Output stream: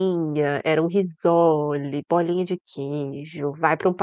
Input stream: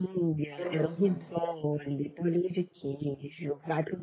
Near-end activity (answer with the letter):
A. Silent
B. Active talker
B